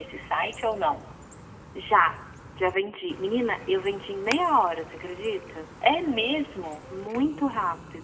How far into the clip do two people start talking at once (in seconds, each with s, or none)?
none